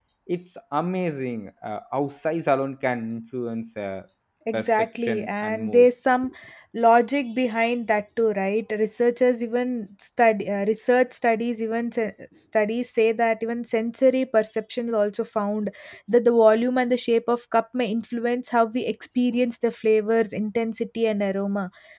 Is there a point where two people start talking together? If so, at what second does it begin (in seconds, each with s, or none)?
4.5 s